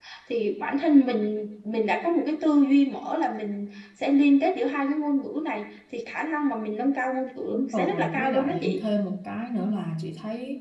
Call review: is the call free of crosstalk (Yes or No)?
No